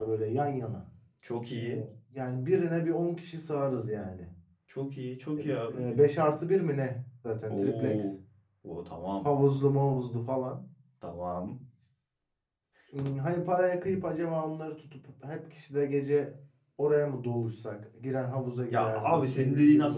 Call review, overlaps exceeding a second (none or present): present